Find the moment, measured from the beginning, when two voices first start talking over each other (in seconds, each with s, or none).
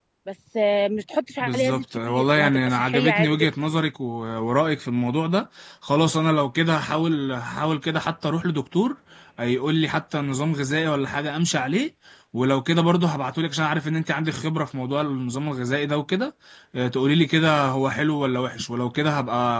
1.4 s